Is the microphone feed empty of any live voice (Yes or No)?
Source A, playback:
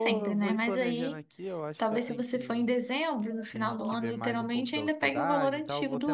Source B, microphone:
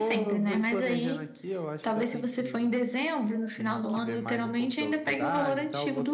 Yes